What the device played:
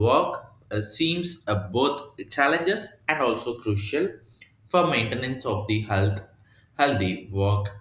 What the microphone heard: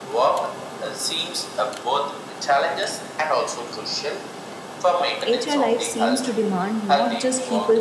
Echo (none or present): present